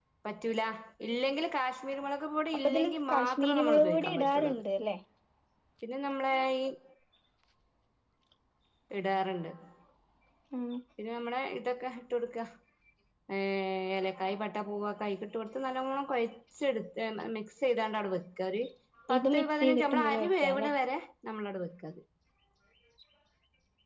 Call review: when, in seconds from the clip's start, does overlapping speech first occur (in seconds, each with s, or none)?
2.6 s